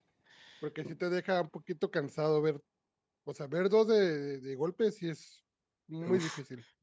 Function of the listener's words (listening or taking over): taking over